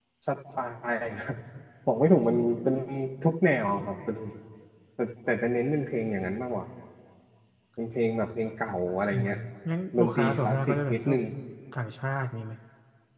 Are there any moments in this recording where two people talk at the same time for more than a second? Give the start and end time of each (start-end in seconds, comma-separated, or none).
10.0-11.2